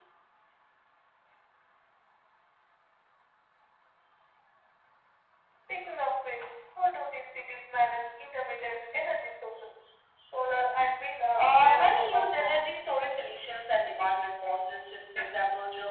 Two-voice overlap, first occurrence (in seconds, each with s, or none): 11.4 s